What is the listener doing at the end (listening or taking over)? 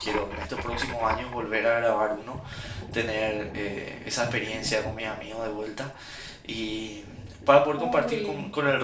listening